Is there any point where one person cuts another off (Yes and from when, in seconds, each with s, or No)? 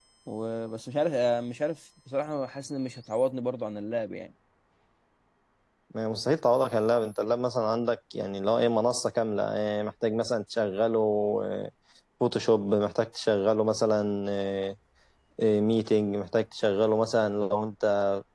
No